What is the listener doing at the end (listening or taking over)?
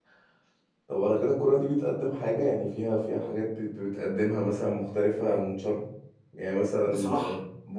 listening